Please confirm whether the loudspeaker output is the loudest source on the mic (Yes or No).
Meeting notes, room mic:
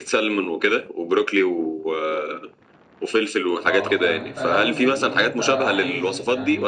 Yes